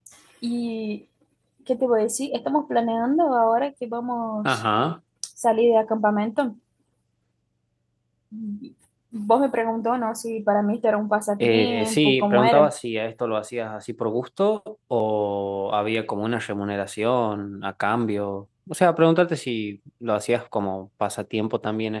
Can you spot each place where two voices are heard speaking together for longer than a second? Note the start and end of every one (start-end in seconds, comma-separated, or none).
11.4-12.7